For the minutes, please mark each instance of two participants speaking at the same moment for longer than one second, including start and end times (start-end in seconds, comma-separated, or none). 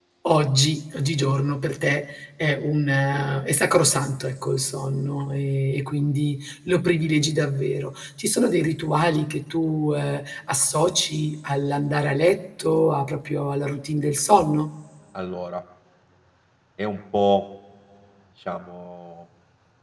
none